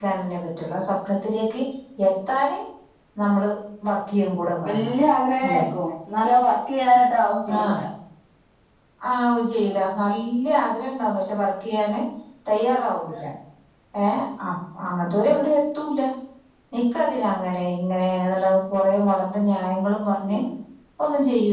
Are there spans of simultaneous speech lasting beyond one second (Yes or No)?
No